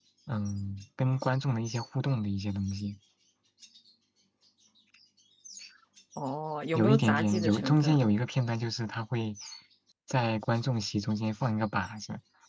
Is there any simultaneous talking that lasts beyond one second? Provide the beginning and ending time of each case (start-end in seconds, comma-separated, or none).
6.7-8.0